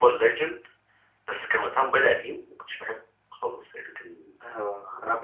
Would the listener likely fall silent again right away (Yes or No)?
No